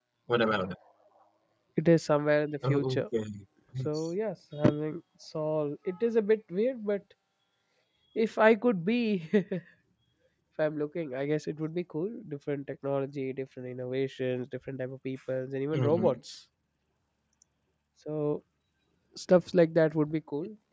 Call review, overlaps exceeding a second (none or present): none